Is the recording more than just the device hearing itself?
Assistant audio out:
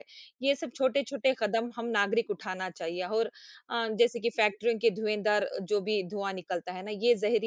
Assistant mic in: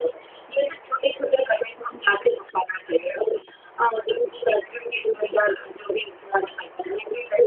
No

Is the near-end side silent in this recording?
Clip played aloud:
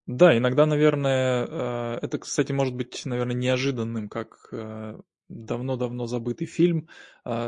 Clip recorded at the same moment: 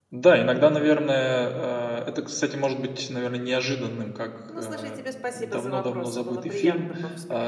No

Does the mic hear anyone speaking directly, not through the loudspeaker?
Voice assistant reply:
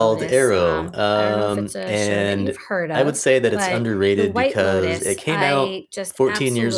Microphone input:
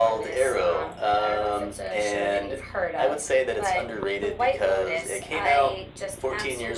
No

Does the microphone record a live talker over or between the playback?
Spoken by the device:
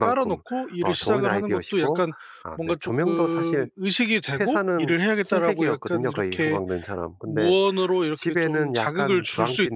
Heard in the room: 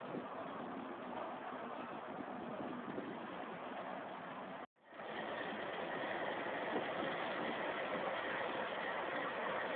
No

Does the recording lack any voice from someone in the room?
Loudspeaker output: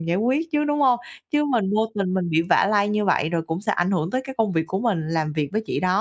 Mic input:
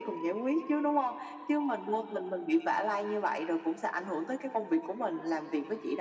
Yes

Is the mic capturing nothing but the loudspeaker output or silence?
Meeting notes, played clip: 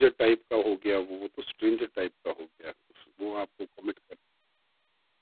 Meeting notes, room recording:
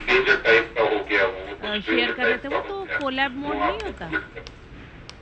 No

